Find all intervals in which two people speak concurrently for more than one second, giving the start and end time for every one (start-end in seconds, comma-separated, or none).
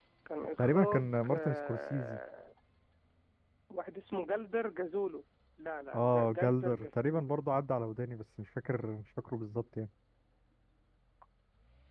0.6-2.2, 5.9-7.3